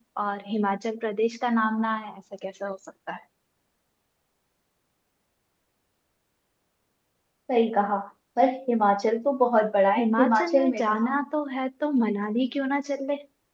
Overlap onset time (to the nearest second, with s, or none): 10 s